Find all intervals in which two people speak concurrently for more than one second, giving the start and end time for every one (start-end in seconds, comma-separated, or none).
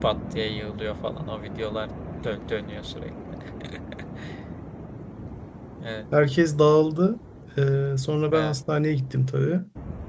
none